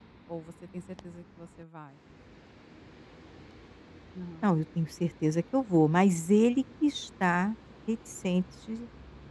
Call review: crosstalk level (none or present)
none